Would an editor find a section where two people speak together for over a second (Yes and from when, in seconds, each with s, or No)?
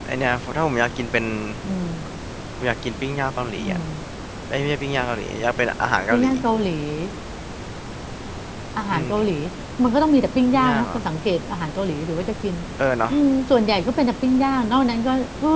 No